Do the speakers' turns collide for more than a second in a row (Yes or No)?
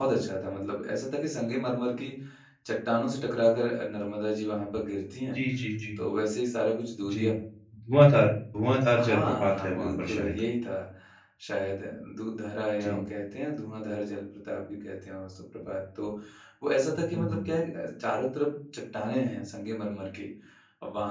Yes